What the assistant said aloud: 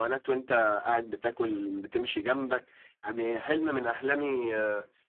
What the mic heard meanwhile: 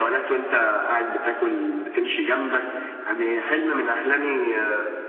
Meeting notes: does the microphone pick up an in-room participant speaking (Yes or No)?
No